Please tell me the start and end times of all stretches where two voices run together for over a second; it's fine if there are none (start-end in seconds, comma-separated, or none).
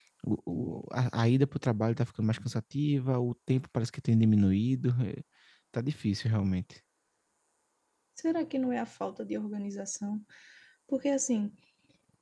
none